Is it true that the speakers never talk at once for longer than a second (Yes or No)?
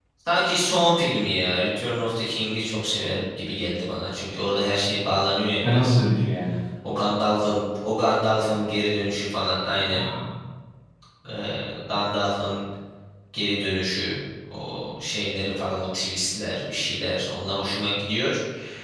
Yes